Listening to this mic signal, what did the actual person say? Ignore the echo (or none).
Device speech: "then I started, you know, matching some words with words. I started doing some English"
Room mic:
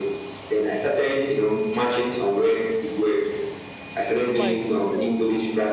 Oh my goodness.